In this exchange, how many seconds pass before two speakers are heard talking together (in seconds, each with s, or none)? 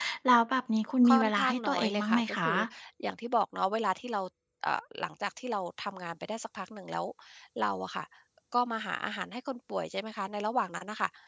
1.1 s